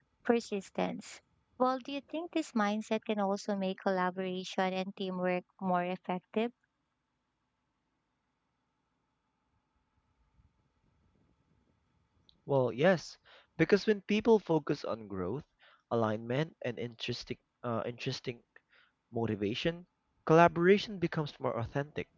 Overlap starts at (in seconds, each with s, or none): none